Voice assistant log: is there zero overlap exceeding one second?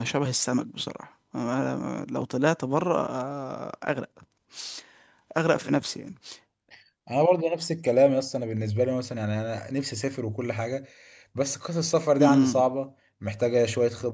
Yes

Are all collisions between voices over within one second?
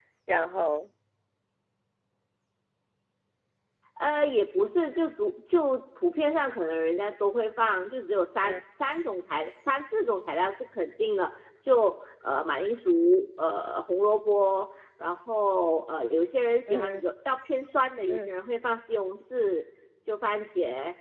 Yes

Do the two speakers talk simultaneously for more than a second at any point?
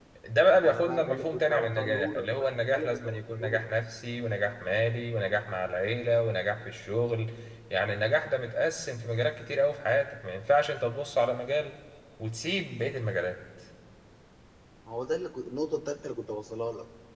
Yes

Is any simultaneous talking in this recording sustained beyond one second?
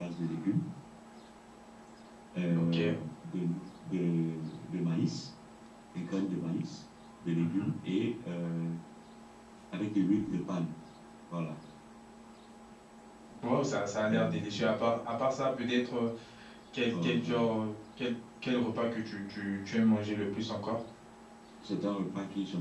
No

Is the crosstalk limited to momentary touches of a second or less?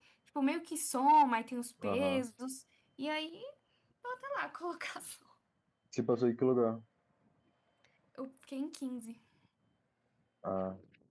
Yes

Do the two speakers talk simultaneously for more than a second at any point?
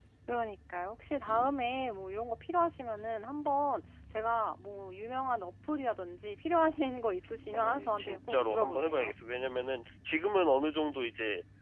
Yes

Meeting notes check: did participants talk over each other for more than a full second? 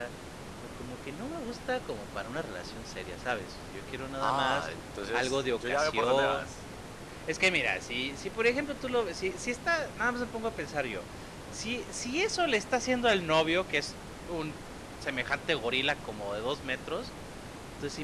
Yes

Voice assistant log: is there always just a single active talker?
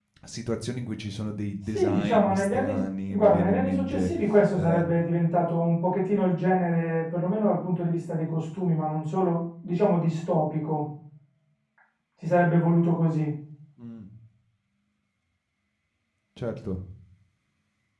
No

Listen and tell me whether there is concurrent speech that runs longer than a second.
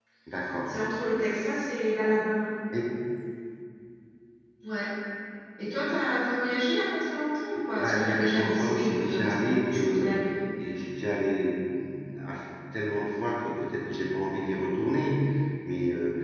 Yes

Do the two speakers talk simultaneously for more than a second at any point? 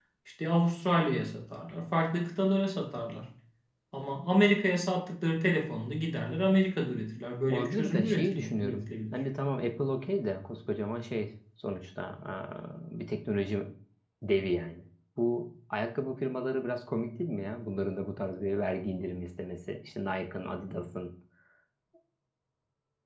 Yes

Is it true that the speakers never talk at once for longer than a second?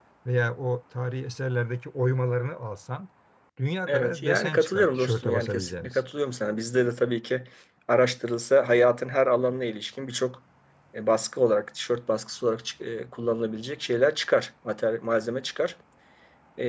No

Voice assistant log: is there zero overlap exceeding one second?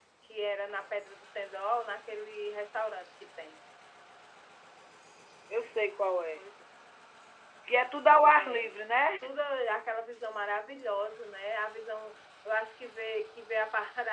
Yes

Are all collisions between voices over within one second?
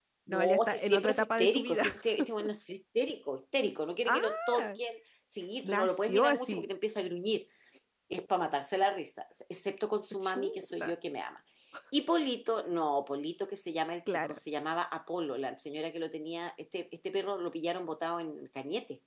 No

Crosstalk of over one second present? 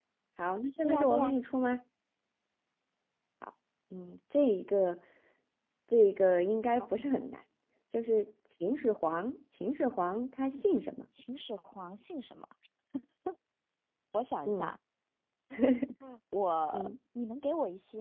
No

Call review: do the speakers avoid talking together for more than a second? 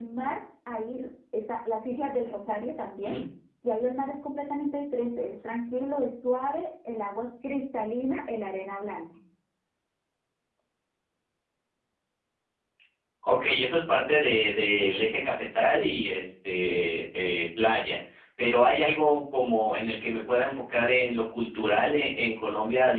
Yes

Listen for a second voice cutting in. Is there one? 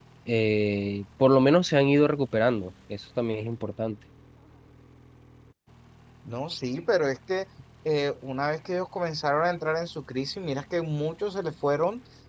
No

